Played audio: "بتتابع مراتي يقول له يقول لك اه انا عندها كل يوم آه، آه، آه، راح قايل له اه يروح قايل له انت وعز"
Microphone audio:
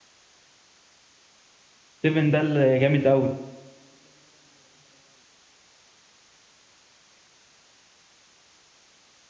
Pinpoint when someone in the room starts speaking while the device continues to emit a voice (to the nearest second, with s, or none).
2 s